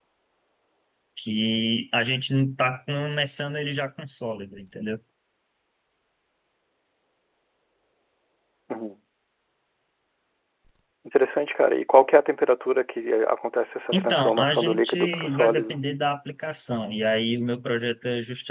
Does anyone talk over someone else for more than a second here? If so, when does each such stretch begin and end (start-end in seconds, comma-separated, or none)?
13.9-15.8